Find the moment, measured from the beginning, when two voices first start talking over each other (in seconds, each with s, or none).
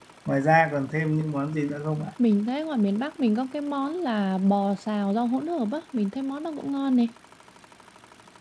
none